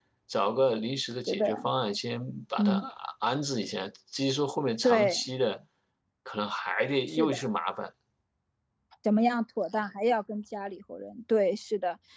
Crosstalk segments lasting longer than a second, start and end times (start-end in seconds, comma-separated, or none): none